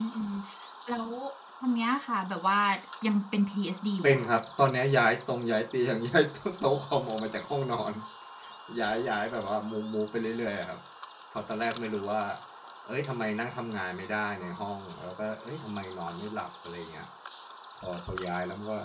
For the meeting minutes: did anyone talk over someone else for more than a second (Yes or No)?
No